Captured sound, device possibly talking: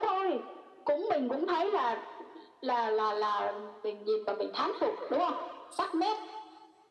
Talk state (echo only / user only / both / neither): echo only